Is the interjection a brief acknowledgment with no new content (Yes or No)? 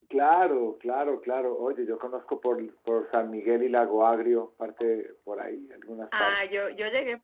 No